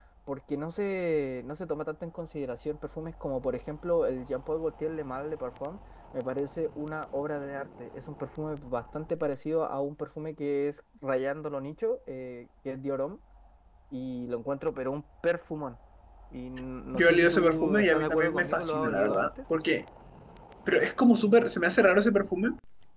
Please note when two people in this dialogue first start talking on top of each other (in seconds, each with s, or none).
16.9 s